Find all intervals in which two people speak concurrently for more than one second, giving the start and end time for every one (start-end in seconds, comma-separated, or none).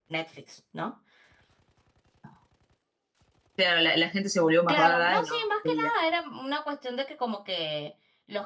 4.7-5.9